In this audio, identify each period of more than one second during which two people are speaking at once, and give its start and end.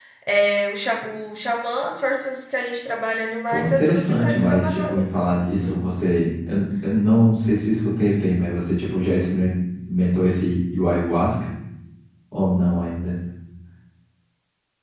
3.5-5.1

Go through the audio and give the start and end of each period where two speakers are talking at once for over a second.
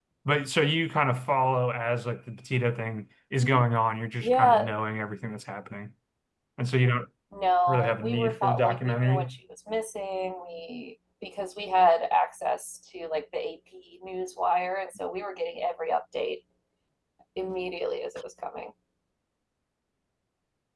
7.7-9.4

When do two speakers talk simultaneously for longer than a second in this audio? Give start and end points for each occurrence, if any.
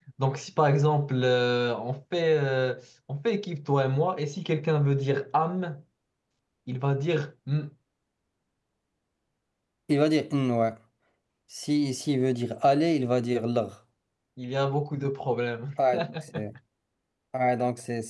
none

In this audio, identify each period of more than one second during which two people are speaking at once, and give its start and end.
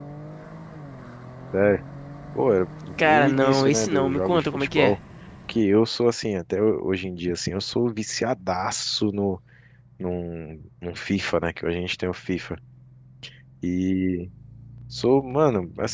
3.0-5.0

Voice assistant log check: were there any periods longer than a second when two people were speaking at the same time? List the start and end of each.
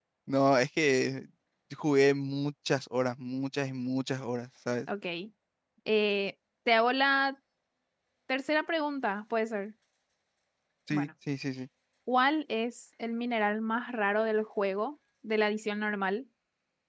none

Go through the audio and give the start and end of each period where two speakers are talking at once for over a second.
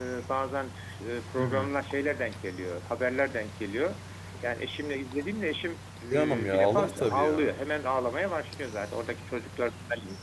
6.1-7.5

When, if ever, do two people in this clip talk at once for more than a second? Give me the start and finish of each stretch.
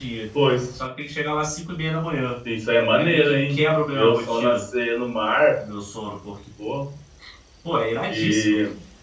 2.9-4.7

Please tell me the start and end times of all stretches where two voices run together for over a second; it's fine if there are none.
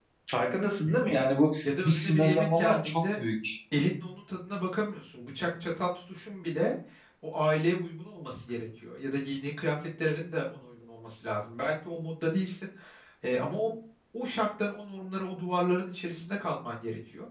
1.8-3.2

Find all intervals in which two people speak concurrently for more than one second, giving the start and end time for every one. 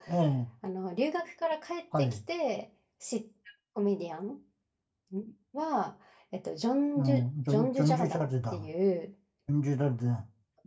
7.0-8.7

